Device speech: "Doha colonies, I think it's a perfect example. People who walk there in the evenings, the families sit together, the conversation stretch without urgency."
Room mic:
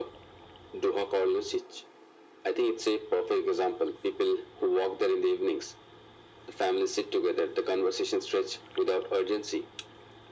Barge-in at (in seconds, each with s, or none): none